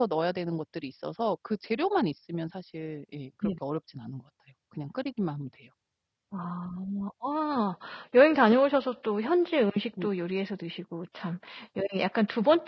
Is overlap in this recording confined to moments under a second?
Yes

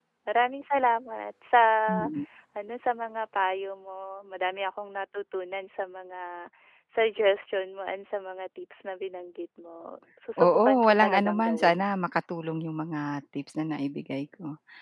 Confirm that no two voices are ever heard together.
No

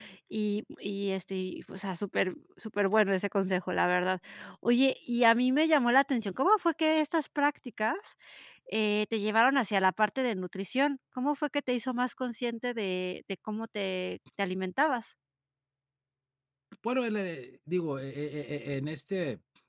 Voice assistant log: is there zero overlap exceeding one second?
Yes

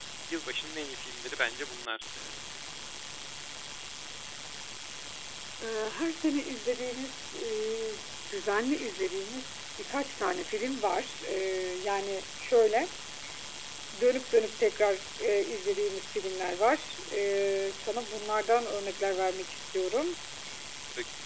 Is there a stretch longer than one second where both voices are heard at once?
No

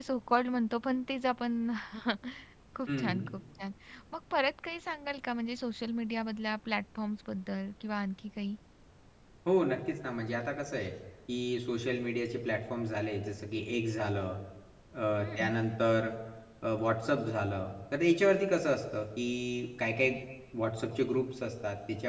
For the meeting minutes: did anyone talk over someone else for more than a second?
No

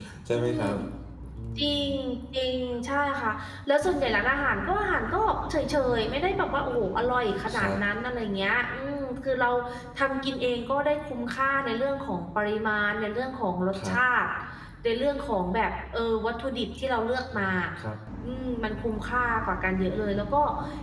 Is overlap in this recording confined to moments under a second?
Yes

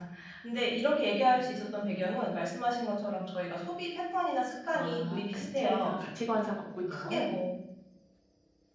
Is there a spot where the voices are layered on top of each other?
Yes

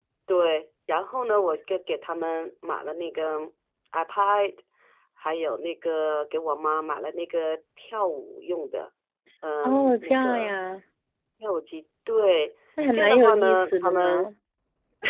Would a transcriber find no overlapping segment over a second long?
No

